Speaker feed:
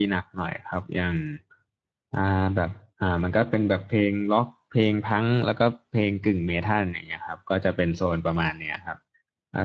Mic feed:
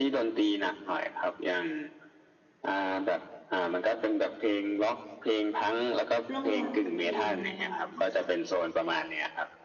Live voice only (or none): ร่องลอยไปกับเพลงอะไรประมาณเนี้ยค่ะ